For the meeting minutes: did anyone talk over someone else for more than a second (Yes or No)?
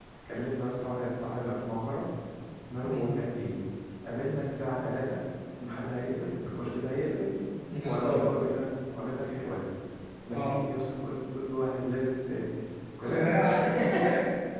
No